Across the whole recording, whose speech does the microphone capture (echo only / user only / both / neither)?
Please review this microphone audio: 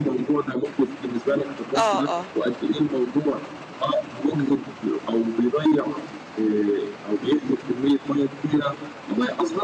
both